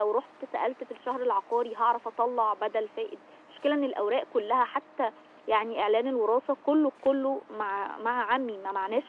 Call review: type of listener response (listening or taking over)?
taking over